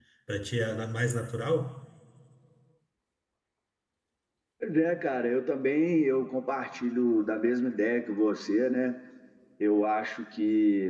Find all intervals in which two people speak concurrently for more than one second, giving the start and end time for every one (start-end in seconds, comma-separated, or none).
none